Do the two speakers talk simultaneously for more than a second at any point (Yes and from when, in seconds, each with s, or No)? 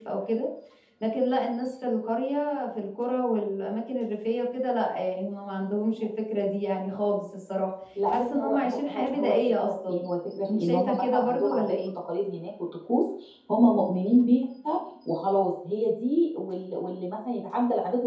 Yes, from 8.0 s